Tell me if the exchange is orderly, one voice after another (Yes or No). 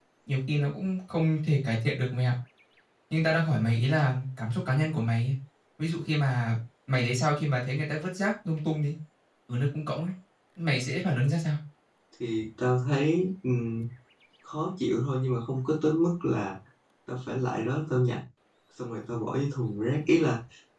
Yes